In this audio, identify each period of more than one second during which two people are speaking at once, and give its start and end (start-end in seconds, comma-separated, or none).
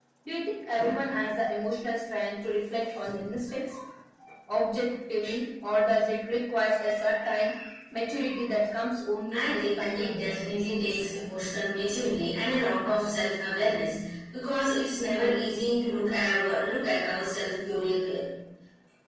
9.3-11.0